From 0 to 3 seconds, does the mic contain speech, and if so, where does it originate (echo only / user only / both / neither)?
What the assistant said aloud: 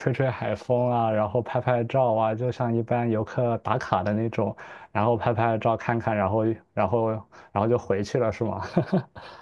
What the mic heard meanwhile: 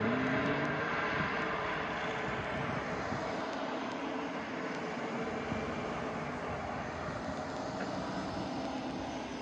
neither